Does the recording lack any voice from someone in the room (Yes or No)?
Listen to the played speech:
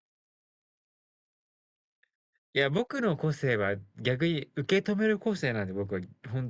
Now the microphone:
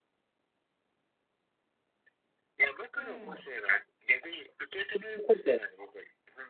No